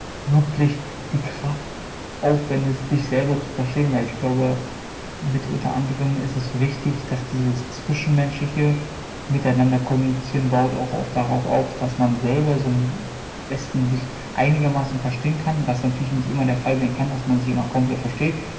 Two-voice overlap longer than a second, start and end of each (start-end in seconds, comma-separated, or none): none